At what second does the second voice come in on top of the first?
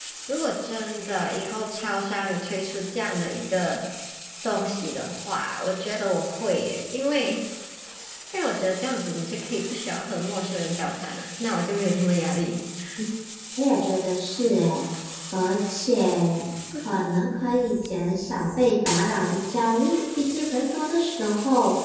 none

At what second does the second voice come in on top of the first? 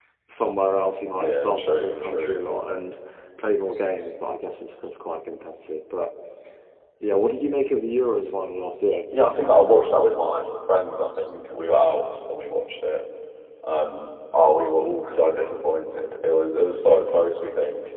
1.1 s

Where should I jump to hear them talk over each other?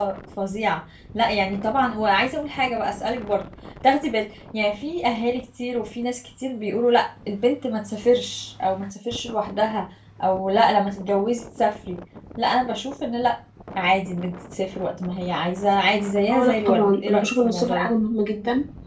16.3 s

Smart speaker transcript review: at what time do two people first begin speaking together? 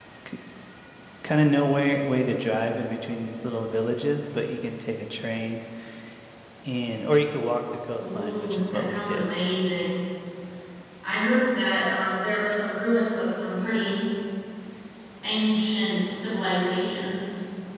8.0 s

